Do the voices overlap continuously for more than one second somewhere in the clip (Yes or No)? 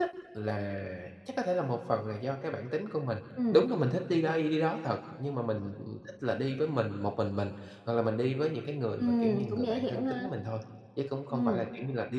Yes